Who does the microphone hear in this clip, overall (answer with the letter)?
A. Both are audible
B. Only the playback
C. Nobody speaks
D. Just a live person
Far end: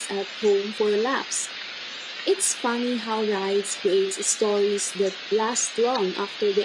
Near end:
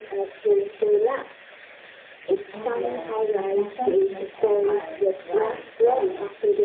A